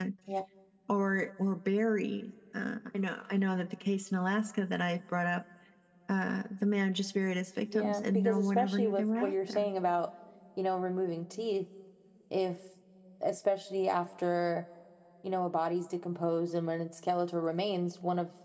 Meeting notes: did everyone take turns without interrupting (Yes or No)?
No